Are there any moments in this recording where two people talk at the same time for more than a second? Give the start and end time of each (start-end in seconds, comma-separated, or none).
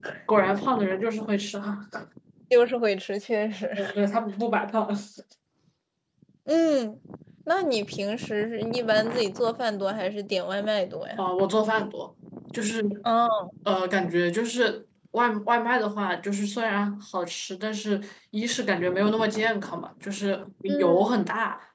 none